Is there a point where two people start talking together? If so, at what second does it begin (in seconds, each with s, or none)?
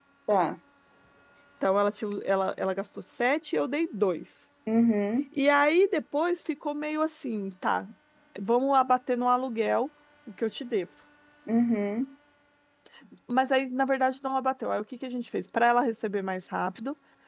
none